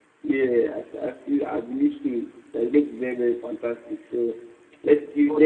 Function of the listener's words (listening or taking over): listening